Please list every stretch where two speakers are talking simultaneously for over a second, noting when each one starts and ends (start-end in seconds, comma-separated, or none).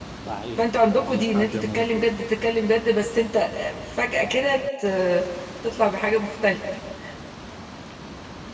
0.6-2.1